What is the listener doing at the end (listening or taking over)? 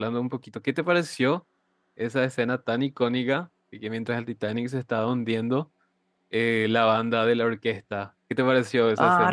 taking over